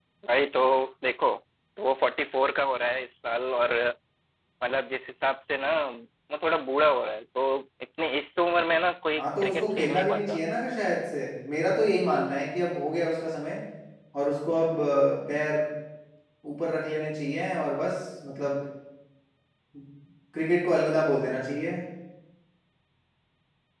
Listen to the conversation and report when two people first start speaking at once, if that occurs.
9.2 s

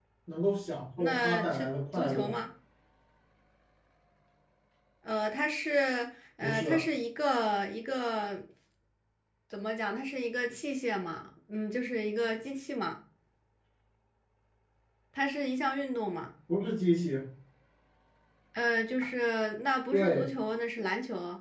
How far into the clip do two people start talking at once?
1.0 s

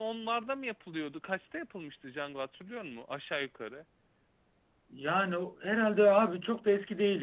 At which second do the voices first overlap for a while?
none

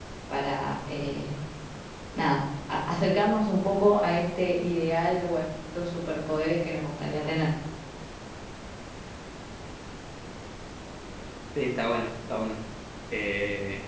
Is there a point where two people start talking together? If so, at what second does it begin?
none

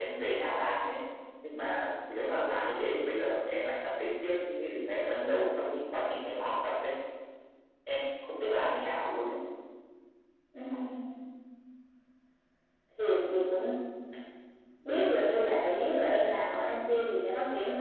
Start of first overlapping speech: none

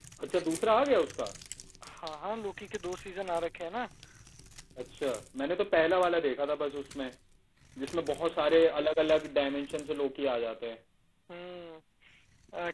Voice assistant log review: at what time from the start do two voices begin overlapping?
none

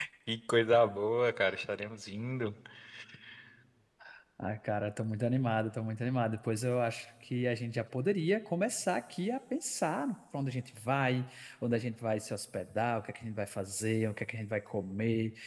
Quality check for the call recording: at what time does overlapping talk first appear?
none

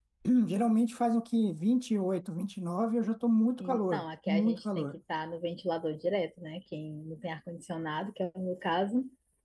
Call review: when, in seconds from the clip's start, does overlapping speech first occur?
3.6 s

